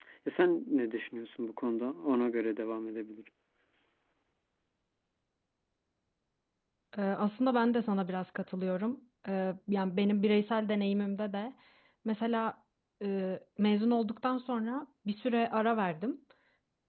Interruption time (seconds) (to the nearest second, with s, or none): none